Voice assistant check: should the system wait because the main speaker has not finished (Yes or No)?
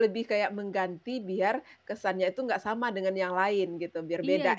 No